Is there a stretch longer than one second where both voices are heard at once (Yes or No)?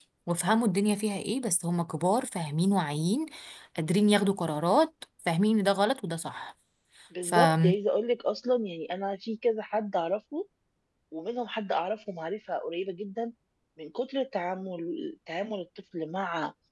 No